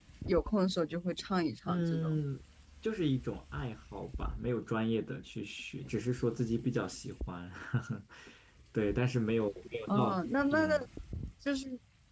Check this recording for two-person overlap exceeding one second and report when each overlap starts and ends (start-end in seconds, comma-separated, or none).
none